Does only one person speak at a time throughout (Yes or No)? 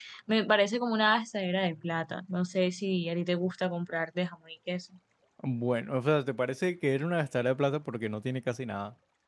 Yes